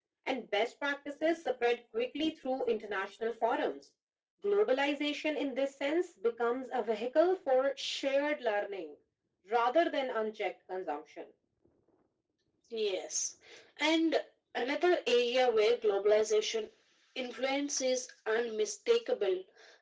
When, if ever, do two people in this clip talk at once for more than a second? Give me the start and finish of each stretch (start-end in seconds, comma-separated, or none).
none